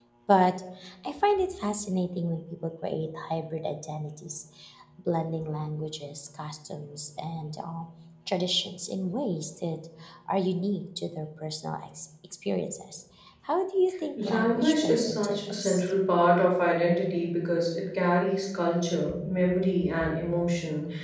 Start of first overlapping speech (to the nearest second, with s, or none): 14 s